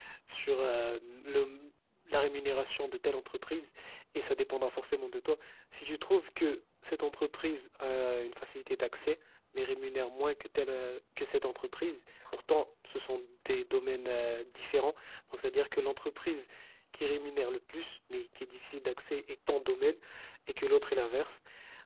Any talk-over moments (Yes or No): No